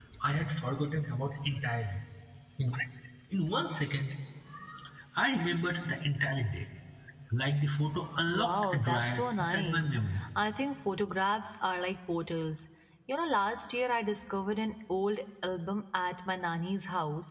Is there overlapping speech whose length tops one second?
Yes, from 8.3 s

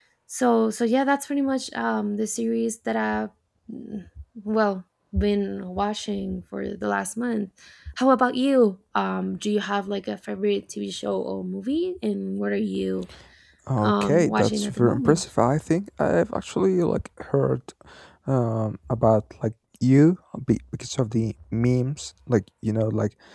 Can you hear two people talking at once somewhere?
Yes, from 13.8 s

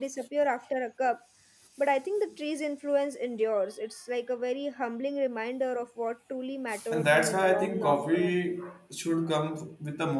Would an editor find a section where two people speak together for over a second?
Yes, from 6.7 s

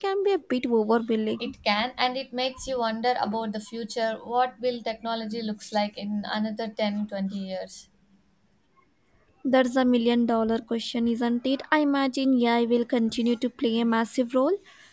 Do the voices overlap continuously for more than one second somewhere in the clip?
No

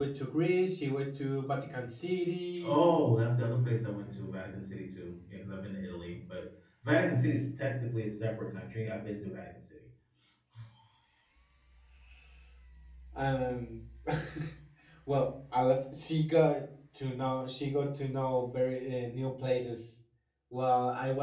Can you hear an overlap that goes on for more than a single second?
No

